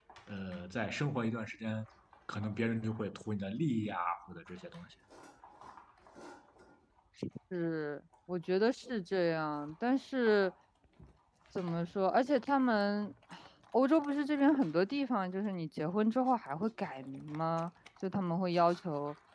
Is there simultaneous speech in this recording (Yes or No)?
No